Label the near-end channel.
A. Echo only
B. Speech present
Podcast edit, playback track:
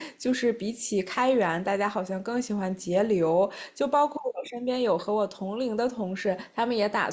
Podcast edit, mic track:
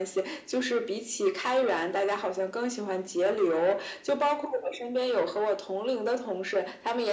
A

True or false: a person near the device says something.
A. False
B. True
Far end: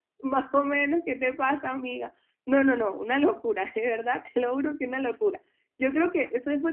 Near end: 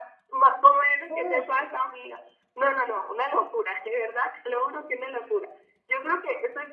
B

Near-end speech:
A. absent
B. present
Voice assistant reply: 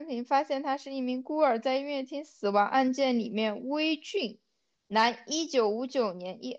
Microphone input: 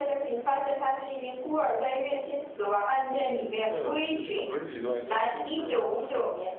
B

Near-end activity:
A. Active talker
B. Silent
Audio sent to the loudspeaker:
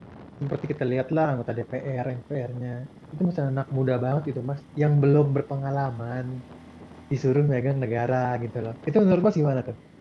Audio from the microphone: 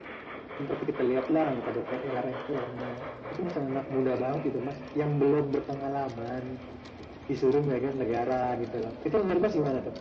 B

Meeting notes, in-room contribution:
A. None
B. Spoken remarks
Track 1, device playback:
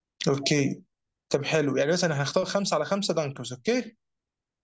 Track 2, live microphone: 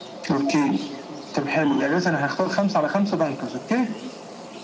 A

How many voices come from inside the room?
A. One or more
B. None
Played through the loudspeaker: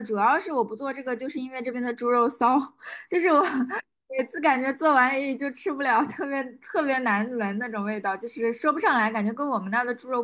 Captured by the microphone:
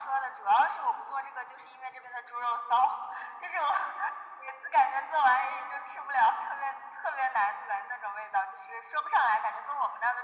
B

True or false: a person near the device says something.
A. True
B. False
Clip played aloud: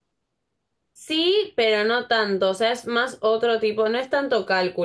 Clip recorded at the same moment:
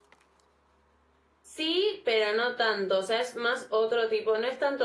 B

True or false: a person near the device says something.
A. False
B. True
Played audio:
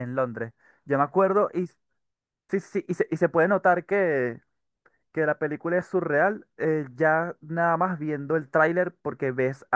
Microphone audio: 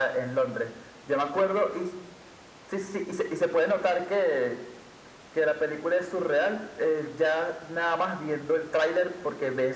A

